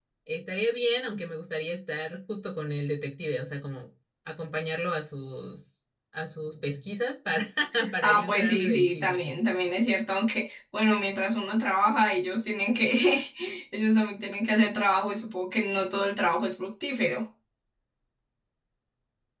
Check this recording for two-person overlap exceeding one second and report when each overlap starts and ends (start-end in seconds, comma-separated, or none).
8.0-9.2